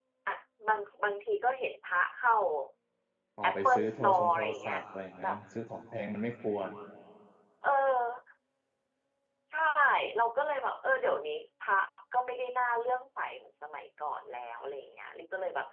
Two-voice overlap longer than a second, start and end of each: 3.4-4.8

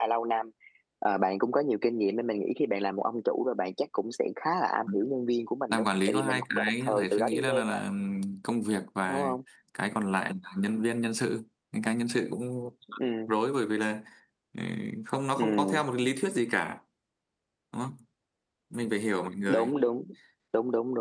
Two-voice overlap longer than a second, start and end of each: 5.7-7.8

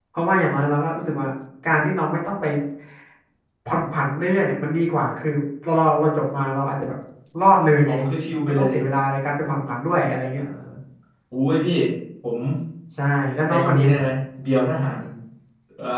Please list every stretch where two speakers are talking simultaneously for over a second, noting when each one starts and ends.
none

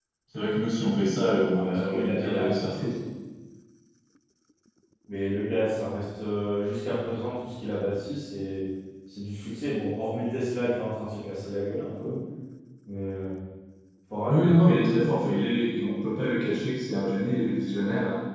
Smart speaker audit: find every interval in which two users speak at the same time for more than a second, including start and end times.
1.5-2.9

